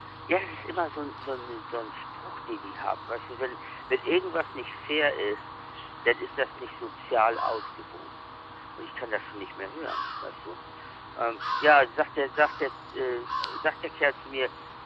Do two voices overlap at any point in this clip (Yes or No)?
No